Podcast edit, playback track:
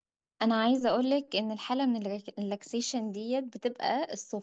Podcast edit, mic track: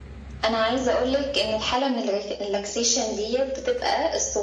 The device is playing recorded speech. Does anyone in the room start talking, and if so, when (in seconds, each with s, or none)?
none